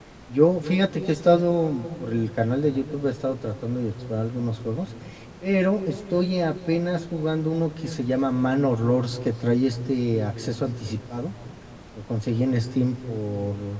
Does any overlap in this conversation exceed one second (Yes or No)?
No